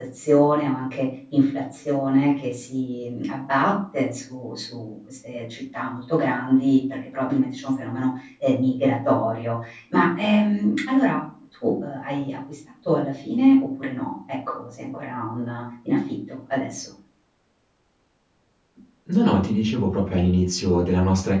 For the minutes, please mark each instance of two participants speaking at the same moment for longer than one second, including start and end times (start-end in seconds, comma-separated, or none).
none